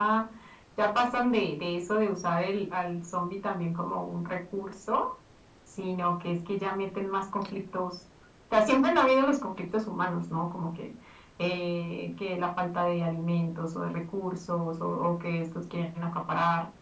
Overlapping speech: No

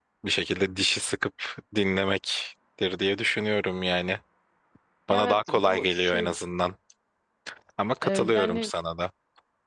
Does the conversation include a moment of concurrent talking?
Yes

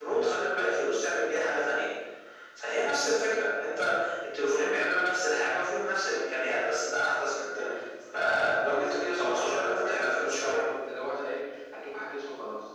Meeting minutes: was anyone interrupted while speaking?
Yes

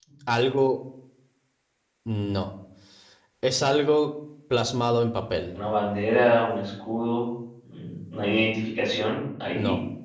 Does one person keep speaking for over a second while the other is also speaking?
No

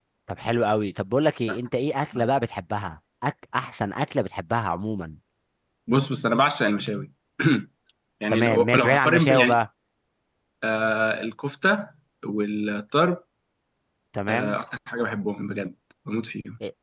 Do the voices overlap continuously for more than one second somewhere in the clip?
Yes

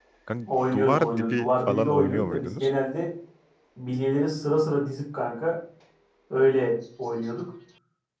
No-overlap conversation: No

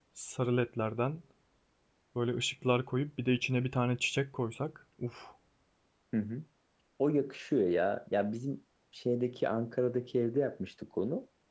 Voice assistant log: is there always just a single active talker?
Yes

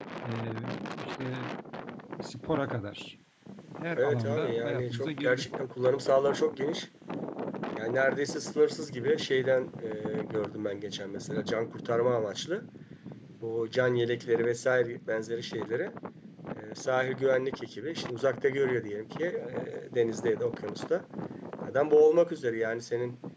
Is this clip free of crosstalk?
No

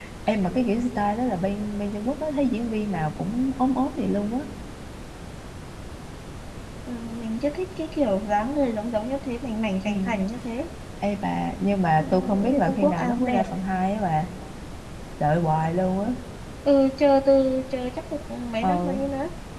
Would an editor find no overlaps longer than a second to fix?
No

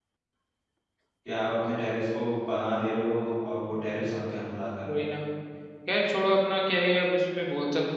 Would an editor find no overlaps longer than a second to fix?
Yes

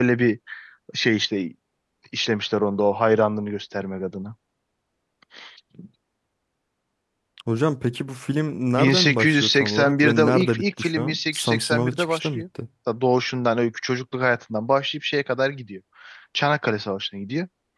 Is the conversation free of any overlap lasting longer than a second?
No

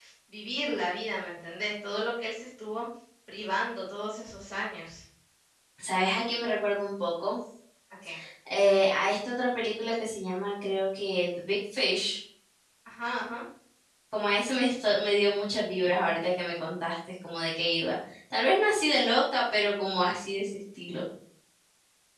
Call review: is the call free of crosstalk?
Yes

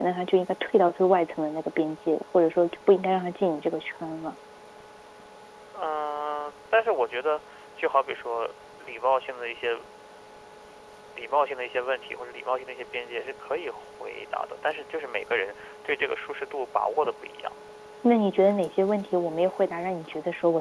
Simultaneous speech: No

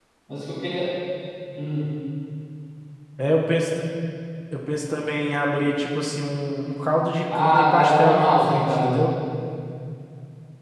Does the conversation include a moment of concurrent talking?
Yes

